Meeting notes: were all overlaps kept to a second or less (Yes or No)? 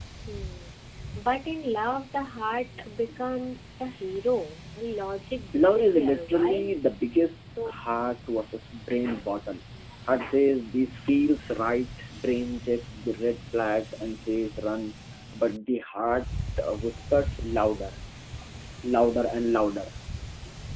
No